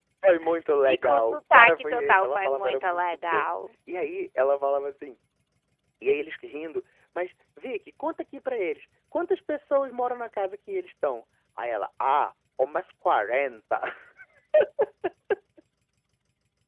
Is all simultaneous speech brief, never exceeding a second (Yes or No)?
No